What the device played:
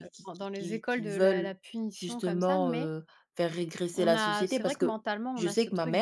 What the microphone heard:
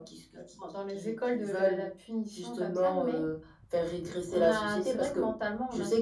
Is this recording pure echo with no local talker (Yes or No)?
Yes